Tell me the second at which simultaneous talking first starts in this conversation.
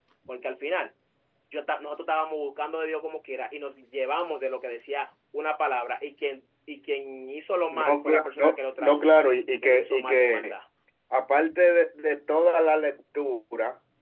7.7 s

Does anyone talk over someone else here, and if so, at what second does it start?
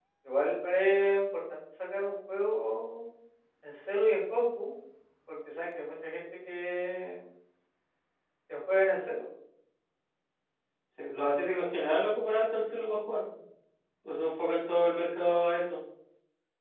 none

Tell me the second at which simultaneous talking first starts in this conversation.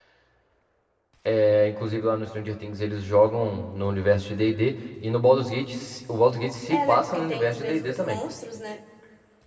6.7 s

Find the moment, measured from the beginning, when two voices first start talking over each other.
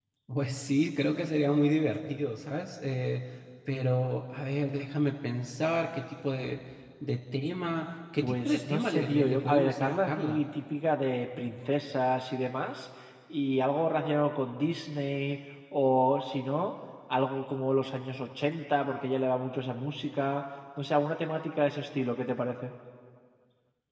8.2 s

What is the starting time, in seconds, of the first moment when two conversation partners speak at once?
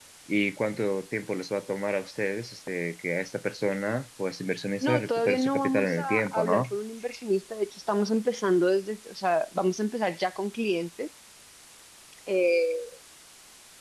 4.8 s

